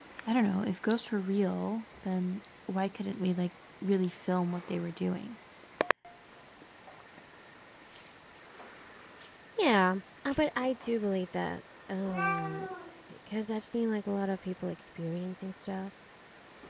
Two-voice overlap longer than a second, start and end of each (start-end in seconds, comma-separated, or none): none